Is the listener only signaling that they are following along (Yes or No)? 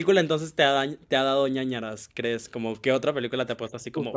No